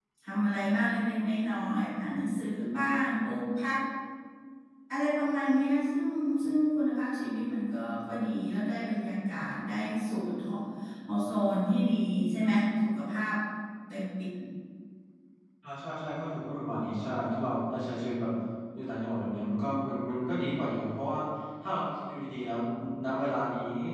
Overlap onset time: none

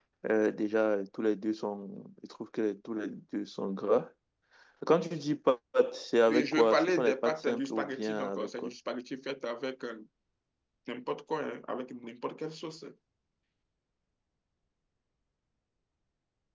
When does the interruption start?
6.3 s

